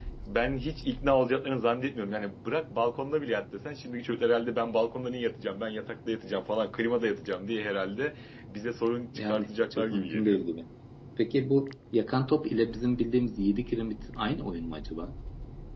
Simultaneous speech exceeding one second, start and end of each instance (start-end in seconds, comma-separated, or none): 9.2-10.4